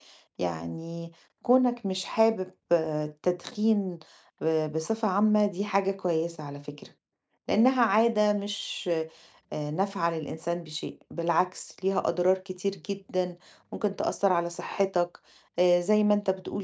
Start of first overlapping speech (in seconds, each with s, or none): none